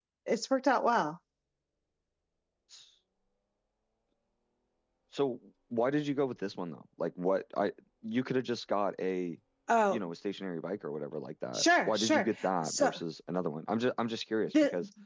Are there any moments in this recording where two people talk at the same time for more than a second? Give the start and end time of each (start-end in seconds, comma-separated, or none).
11.5-12.9